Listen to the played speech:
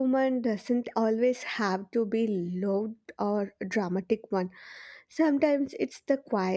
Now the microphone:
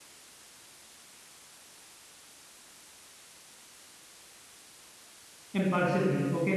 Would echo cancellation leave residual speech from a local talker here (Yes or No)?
Yes